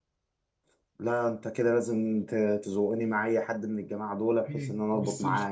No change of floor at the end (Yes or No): No